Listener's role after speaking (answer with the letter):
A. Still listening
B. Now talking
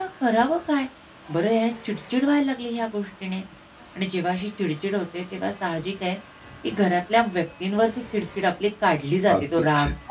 B